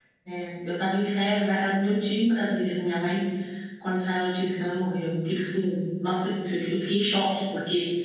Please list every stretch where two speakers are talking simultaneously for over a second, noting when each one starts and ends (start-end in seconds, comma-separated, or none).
none